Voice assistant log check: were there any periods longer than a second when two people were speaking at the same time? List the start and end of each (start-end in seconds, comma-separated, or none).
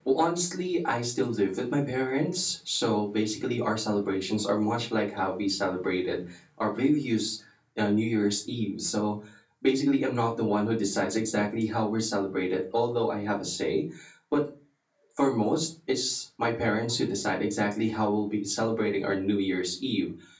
none